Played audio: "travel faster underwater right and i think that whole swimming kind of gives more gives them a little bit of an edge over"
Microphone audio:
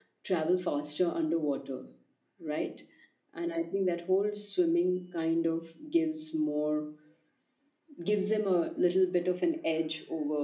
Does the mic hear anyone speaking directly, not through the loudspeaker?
No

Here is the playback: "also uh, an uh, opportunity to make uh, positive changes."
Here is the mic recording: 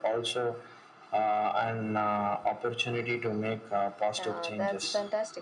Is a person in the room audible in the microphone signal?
Yes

